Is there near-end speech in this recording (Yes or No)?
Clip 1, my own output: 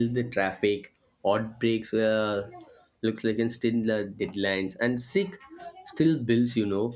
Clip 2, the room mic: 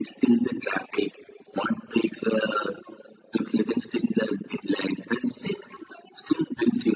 No